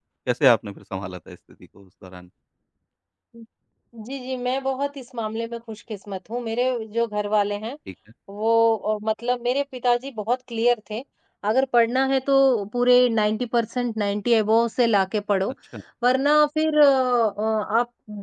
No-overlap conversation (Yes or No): Yes